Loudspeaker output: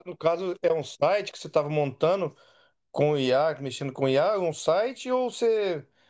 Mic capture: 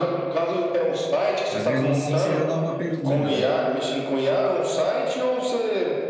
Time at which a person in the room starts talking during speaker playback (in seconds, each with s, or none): 1.5 s